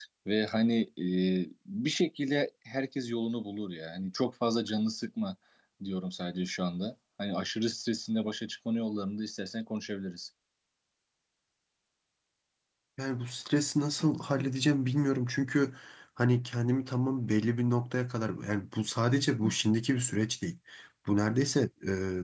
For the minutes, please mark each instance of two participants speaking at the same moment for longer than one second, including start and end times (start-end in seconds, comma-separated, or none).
none